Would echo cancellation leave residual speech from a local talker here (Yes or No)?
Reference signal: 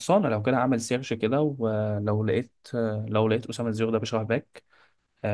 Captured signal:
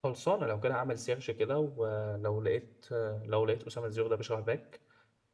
No